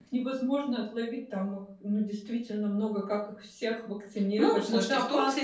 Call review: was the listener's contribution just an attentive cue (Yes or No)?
No